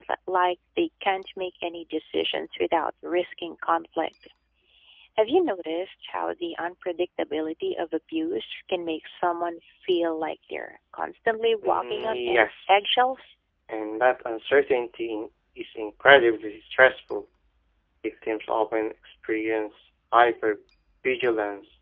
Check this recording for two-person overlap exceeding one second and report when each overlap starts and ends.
11.6-13.3

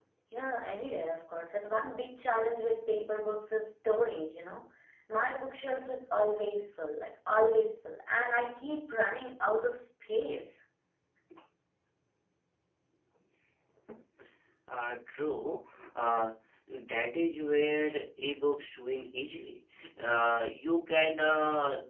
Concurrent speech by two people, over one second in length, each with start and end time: none

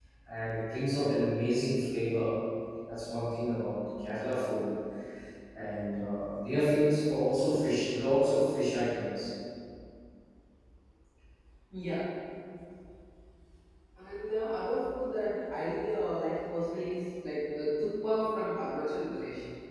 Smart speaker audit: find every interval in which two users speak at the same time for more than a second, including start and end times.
none

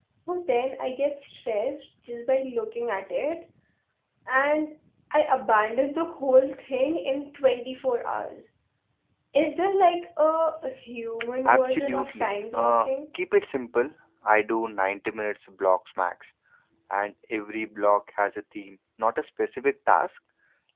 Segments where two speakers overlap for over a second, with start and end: 11.5-12.9

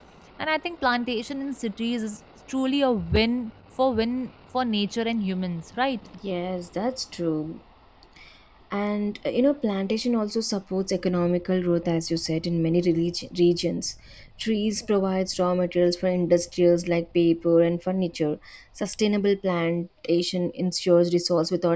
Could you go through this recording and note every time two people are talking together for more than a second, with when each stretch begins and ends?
none

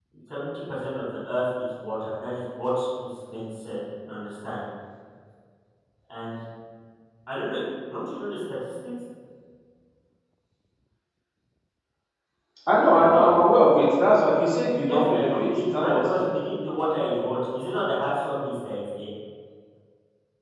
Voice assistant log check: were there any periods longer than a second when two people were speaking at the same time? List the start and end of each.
14.8-16.3

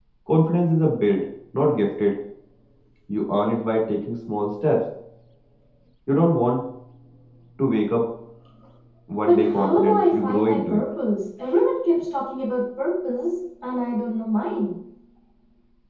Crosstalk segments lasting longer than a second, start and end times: 9.3-10.8

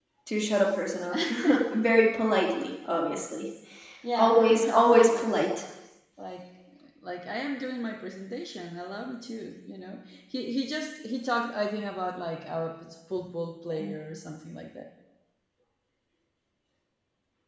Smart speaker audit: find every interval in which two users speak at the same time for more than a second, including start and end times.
4.1-5.5

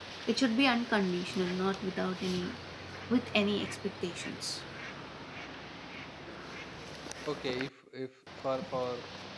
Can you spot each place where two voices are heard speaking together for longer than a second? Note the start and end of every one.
none

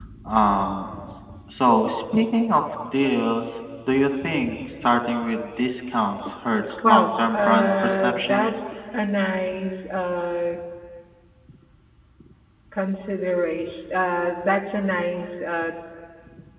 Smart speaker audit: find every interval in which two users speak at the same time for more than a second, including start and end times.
6.8-8.5

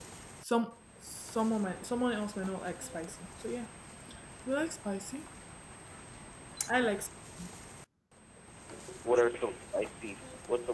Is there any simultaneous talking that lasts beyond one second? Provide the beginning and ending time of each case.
none

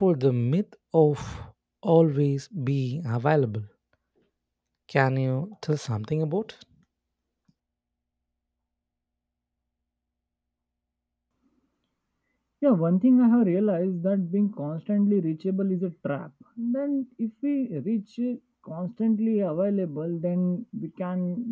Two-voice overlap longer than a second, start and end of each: none

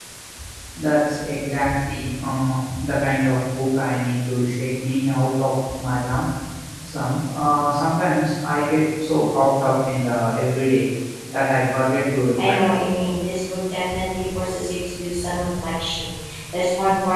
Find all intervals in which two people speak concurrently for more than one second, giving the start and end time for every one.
none

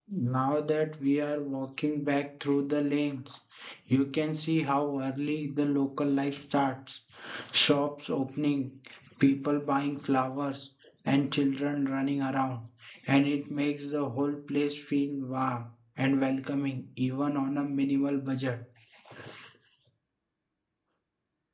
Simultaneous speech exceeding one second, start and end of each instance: none

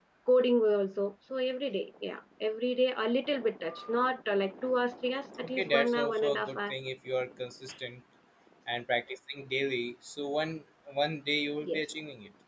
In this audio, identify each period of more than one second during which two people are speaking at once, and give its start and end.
5.4-6.7

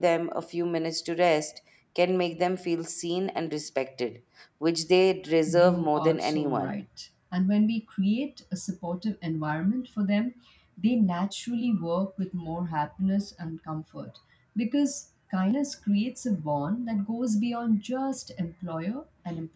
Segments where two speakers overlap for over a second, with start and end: 5.5-6.8

